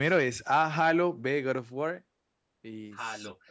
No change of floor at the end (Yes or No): No